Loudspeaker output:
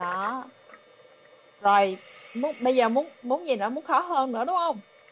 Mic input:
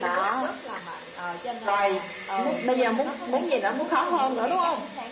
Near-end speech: present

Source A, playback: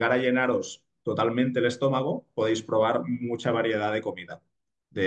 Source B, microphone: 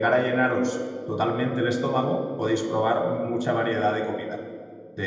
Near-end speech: none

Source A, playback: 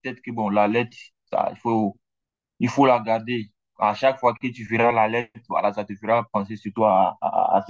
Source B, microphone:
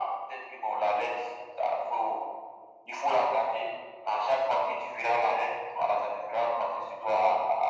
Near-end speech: none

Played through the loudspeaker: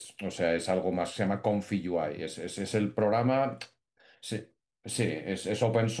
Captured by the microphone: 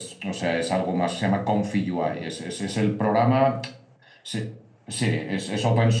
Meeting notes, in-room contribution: none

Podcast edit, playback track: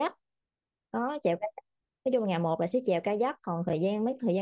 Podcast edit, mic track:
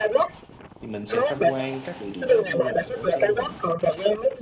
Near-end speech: present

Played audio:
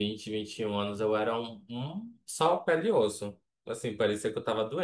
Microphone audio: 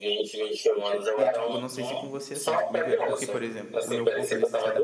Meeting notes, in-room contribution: present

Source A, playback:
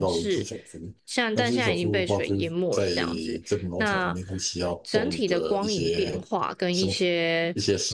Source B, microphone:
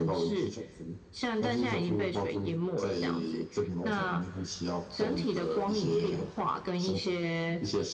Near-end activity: none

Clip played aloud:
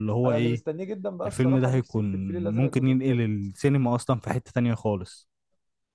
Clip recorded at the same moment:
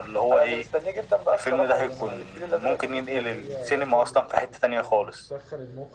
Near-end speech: present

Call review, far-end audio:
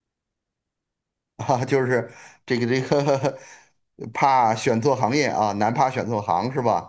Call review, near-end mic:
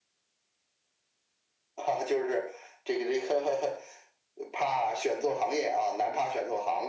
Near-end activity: none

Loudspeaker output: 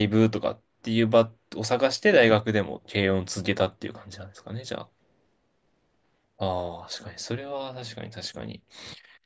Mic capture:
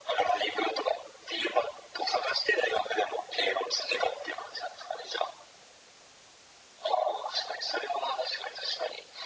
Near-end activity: none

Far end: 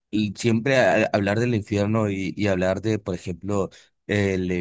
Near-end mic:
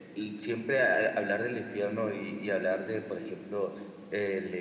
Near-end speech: none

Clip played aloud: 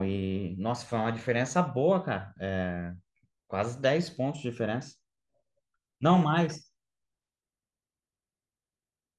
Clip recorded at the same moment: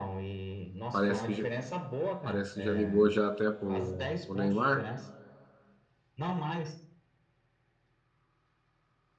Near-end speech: present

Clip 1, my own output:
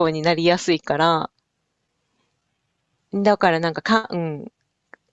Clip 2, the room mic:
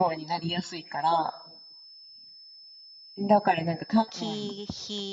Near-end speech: present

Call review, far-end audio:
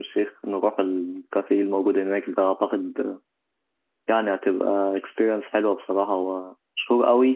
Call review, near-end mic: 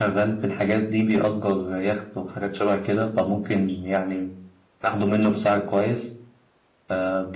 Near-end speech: present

